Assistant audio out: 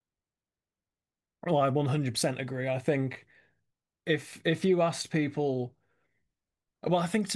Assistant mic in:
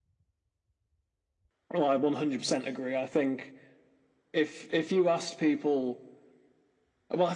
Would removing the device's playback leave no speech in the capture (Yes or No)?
Yes